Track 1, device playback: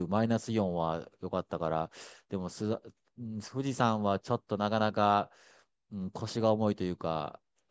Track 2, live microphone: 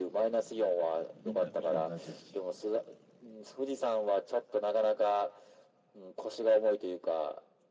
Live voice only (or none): みんな、みんな同じだし。